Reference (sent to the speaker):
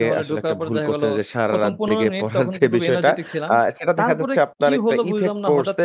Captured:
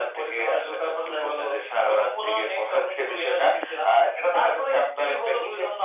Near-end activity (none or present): none